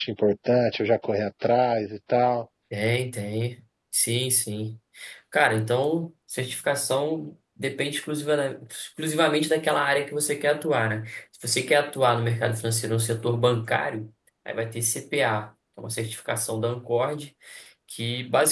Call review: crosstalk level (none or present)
none